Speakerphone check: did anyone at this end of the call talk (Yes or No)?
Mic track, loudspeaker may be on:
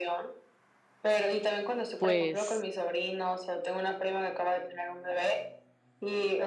Yes